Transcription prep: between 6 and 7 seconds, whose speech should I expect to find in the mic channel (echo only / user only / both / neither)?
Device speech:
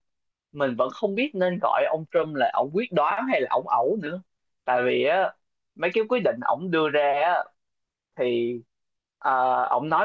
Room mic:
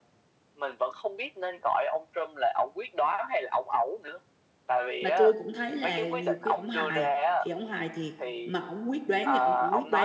both